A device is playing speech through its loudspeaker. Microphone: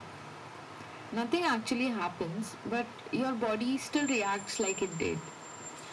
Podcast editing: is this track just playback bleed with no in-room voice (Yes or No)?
Yes